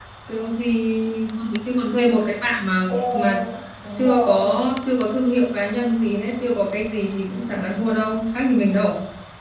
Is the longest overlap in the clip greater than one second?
No

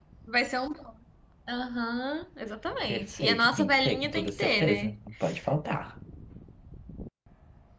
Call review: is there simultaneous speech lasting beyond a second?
Yes, from 2.9 s

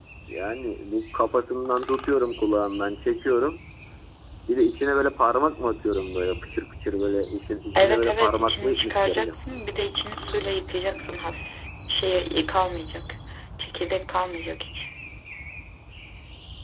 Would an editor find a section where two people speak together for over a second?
Yes, from 7.8 s

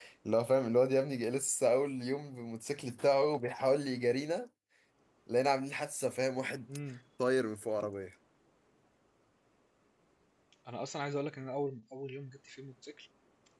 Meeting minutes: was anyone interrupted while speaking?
No

